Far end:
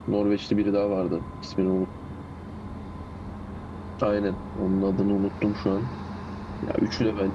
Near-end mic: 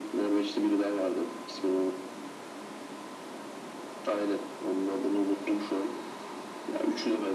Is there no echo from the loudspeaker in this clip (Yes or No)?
No